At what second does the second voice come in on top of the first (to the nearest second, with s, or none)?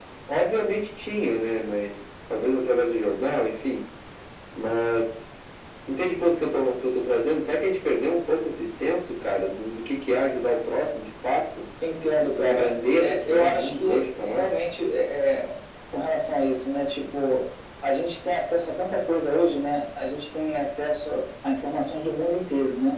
12 s